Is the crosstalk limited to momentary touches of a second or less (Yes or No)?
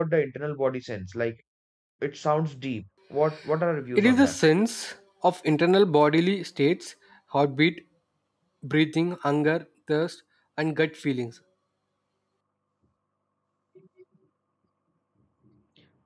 Yes